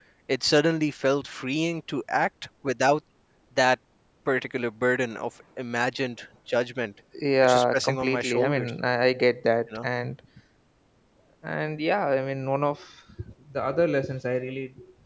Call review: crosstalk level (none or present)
present